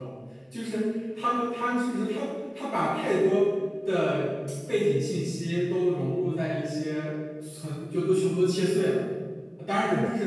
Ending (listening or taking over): listening